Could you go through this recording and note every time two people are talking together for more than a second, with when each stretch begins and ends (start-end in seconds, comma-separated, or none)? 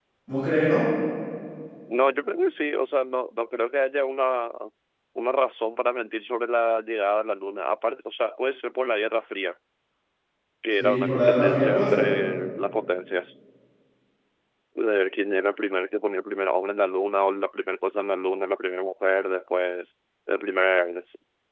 10.8-12.1